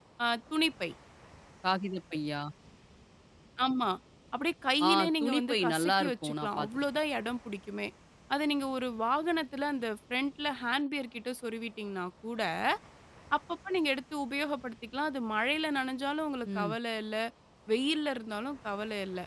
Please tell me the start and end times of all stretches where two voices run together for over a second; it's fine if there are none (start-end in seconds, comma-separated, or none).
4.9-6.8